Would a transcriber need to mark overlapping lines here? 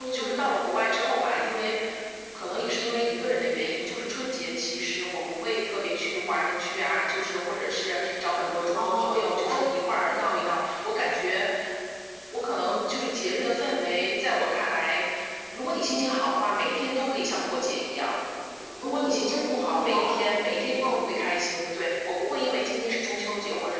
Yes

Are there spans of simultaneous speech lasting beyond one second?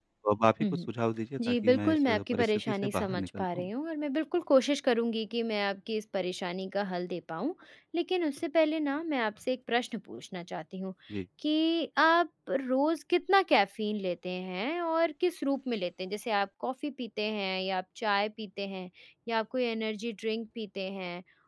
Yes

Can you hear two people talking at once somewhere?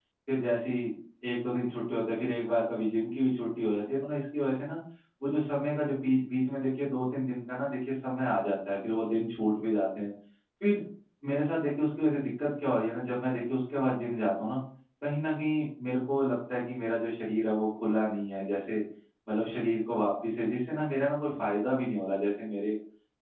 No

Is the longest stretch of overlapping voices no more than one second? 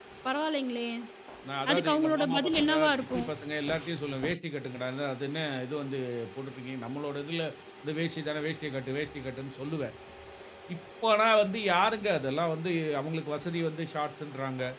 No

